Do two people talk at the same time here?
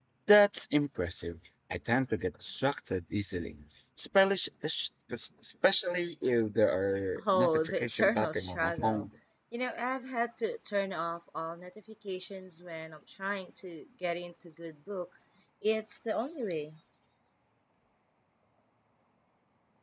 Yes, from 7.2 s

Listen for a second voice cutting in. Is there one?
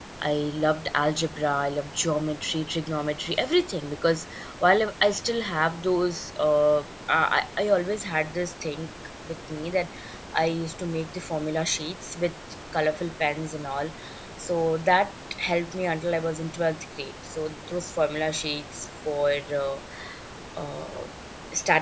No

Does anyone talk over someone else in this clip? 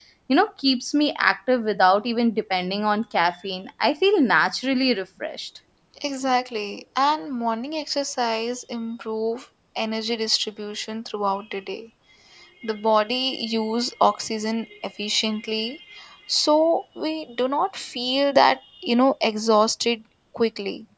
No

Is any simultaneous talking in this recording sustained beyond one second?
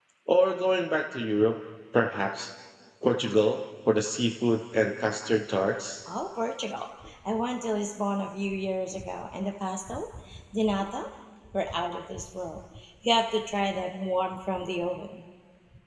No

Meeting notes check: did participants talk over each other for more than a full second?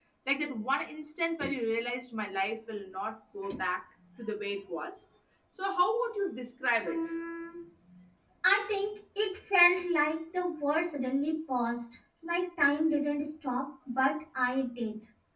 No

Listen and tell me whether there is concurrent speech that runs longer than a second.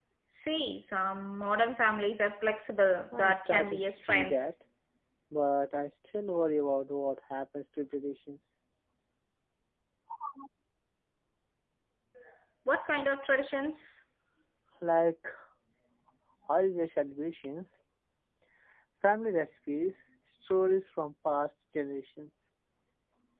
Yes, from 3.1 s

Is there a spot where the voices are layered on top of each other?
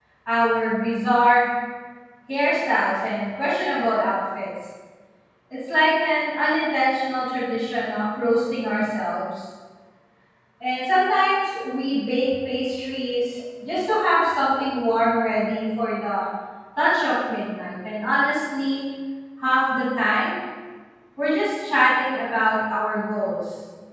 No

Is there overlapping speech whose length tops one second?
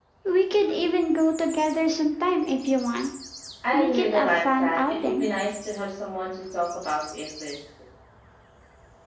Yes, from 3.7 s

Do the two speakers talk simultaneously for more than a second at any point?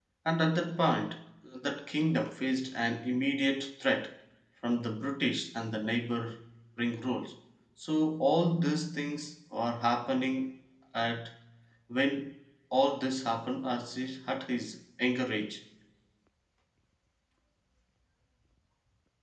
No

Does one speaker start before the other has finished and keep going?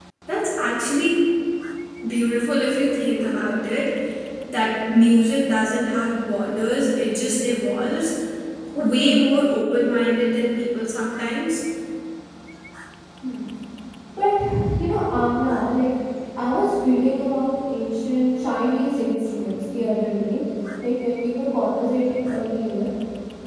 No

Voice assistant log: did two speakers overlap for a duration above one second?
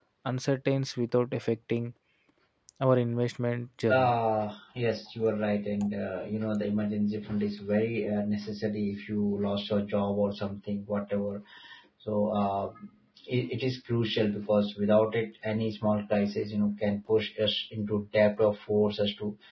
No

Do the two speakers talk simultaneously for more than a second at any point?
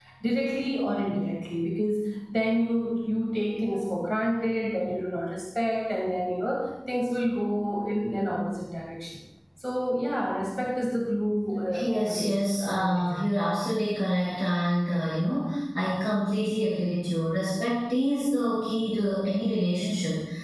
Yes, from 11.7 s

